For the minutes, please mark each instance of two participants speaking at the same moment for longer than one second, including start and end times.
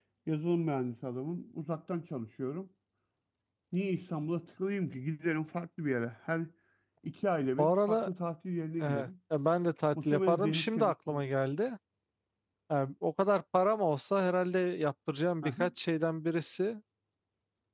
9.9-11.2

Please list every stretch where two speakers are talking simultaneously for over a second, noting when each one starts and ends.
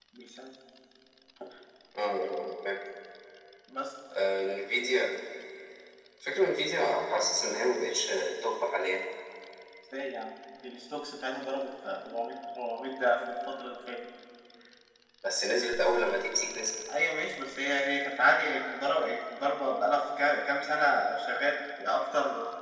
none

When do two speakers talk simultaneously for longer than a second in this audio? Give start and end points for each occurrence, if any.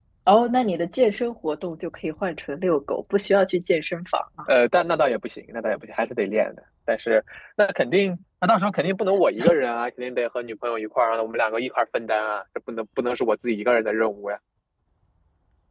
none

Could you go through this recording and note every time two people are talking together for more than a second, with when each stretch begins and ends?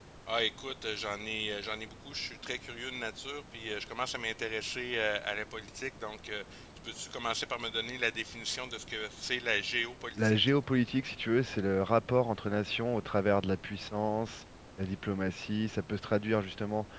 none

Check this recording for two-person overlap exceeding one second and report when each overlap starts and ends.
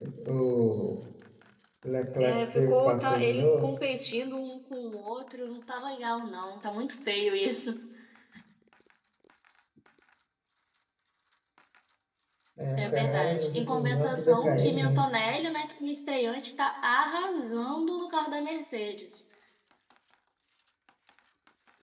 2.2-3.7, 12.8-15.1

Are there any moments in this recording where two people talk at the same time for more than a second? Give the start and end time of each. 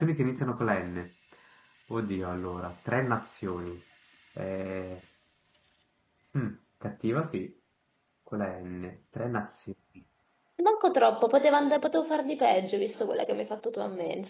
none

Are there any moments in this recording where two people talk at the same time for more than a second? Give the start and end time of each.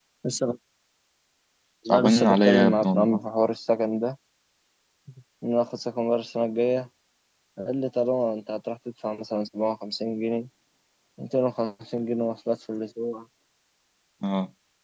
1.9-3.2

